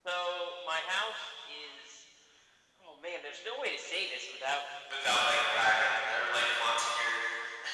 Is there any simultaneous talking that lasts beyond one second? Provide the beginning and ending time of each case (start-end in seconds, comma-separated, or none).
none